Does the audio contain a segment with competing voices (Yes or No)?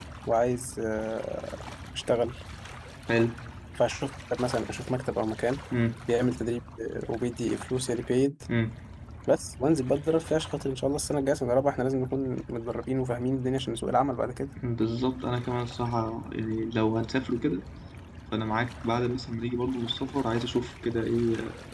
No